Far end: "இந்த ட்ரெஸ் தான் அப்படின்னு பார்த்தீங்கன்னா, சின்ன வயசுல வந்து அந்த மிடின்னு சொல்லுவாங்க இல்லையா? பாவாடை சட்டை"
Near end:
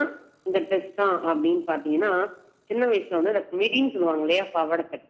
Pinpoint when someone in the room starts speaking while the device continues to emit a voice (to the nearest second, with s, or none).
none